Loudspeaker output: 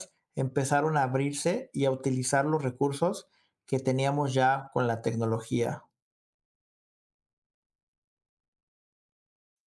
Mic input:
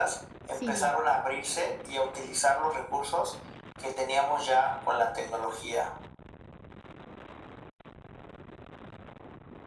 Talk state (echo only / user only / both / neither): both